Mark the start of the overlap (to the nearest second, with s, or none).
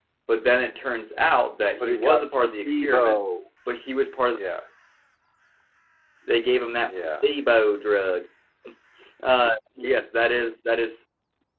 2 s